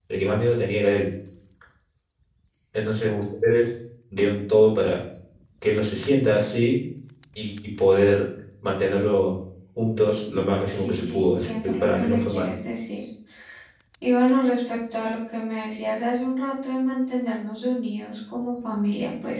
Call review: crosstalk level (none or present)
present